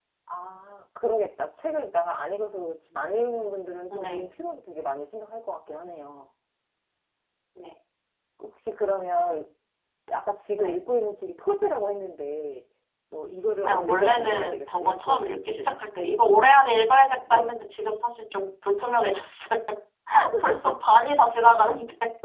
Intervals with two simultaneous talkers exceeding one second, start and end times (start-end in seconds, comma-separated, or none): 13.6-15.7